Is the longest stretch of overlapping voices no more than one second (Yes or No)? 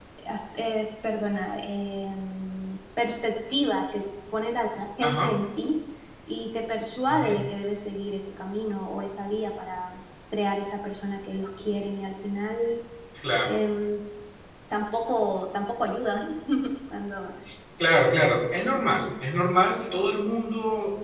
Yes